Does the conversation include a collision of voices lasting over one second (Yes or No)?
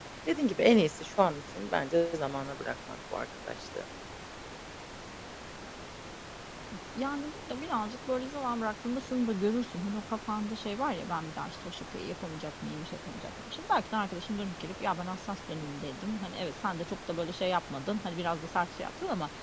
No